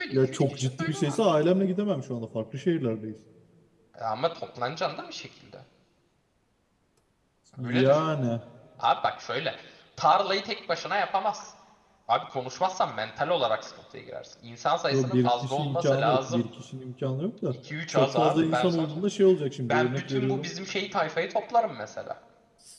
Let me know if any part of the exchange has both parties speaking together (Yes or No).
Yes